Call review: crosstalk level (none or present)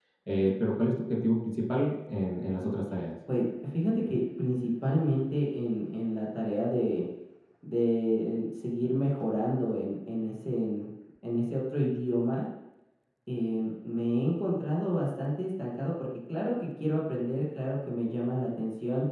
none